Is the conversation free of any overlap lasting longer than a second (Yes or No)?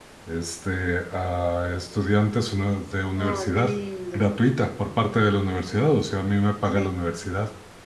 Yes